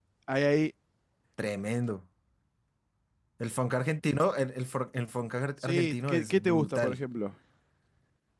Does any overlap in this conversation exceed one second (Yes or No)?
Yes